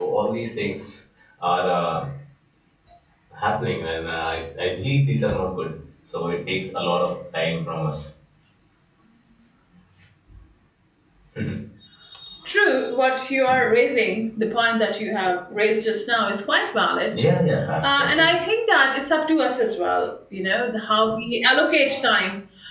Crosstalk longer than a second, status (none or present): none